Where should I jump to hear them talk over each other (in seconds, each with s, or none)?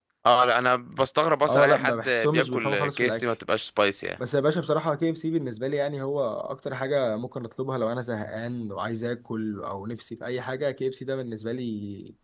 1.4 s